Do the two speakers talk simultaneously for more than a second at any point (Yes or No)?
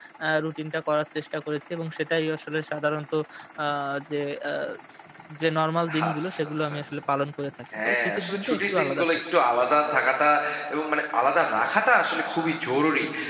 Yes